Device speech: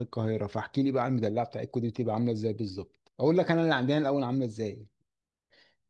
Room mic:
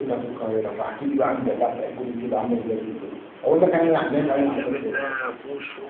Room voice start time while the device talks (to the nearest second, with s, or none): 4 s